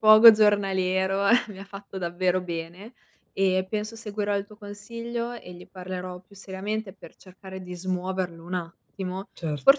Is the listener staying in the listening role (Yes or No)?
Yes